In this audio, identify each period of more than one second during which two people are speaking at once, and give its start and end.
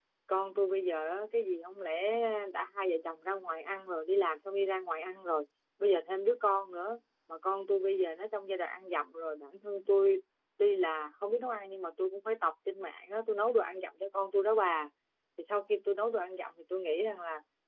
none

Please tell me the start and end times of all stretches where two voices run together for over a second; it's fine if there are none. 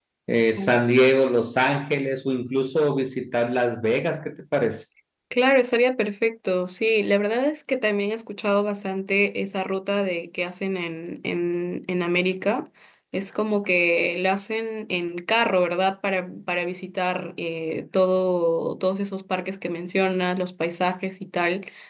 none

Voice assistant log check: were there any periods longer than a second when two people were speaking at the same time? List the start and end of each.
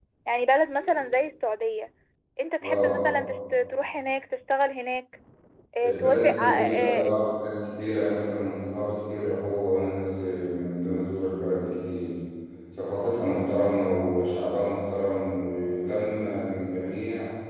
5.8-7.1

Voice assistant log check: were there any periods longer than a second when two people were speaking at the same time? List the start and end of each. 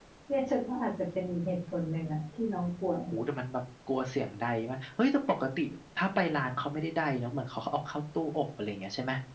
none

